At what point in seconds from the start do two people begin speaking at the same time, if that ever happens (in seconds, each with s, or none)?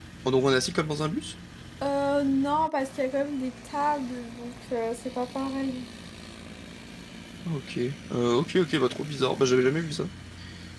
none